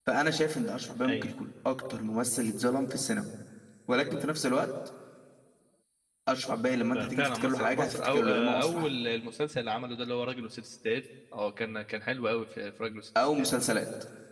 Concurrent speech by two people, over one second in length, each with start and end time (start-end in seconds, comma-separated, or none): 6.9-8.9